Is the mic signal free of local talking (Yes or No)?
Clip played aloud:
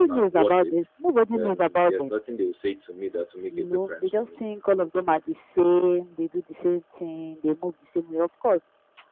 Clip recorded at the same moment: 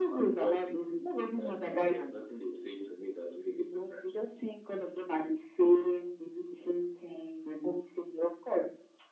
Yes